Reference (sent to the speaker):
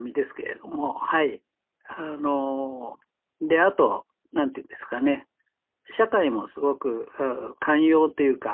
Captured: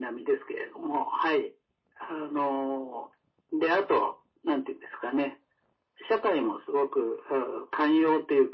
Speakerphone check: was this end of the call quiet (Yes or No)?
Yes